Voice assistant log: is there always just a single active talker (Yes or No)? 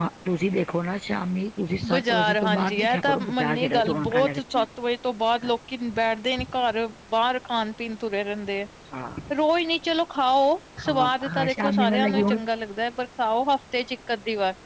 No